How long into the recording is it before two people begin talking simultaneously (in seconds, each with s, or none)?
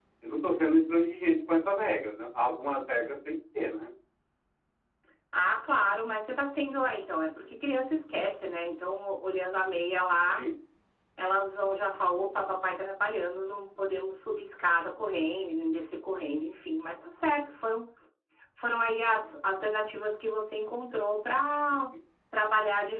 none